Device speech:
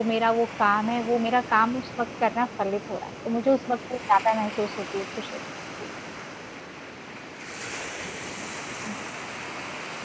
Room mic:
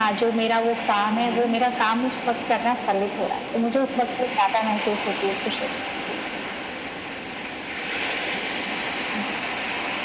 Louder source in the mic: echo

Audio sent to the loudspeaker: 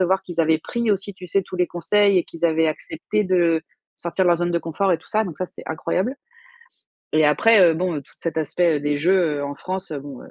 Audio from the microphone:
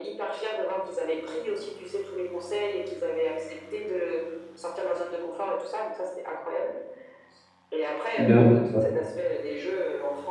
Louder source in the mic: user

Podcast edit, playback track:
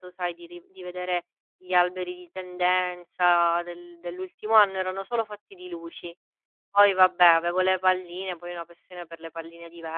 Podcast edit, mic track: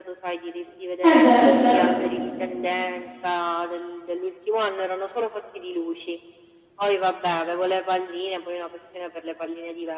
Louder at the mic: user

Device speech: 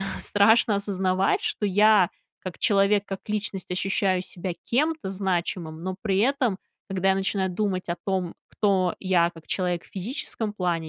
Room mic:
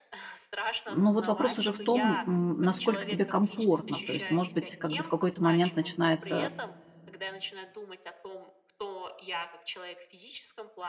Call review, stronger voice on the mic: user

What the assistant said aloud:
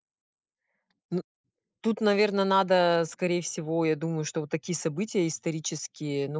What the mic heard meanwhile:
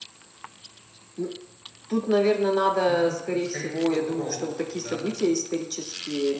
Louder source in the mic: echo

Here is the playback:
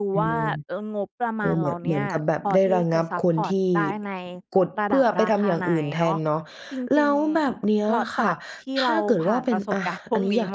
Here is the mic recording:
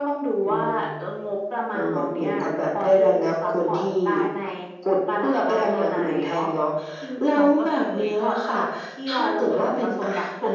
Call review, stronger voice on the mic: echo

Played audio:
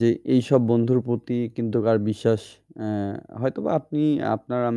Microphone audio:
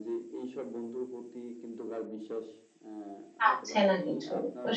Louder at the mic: user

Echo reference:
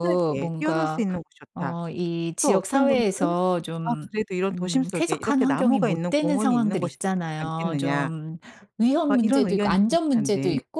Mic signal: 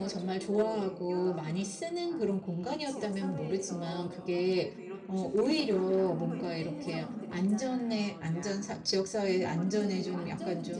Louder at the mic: user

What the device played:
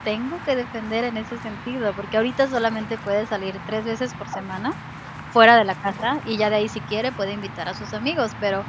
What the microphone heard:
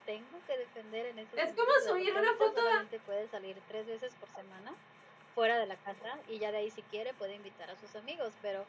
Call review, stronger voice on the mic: user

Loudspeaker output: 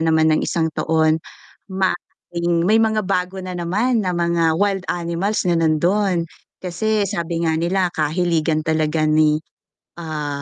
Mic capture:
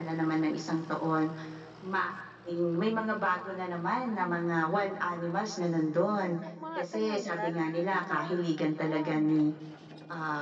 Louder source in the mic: echo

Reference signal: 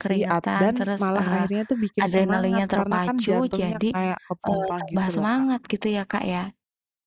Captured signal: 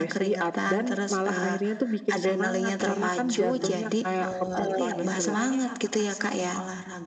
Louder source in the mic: echo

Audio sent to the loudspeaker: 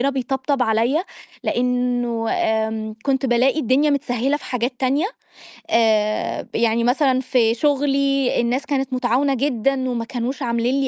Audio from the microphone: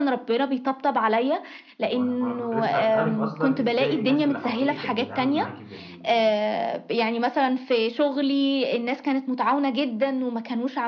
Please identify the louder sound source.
echo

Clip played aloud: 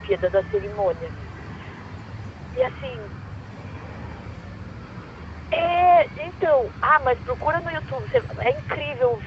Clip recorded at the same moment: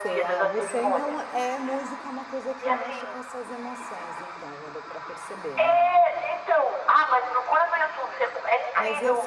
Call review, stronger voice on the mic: echo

